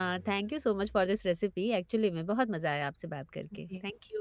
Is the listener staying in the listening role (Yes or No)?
No